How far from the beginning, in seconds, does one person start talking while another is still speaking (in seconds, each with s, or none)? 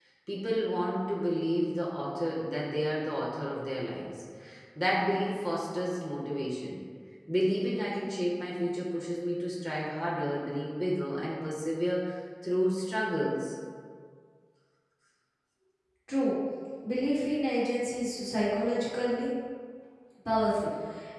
none